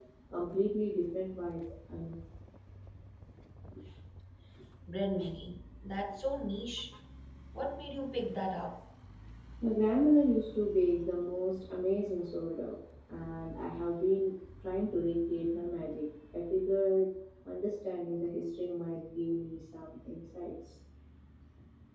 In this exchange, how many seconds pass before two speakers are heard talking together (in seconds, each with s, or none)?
none